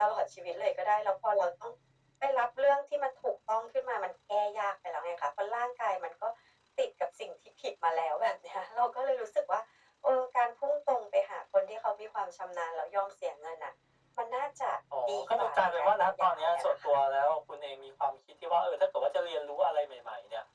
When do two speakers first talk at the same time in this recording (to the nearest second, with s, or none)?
15 s